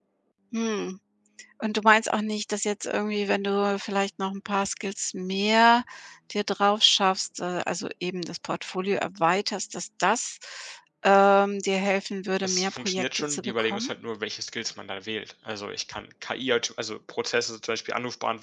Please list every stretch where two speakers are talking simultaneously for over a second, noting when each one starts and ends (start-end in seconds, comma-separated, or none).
12.4-13.9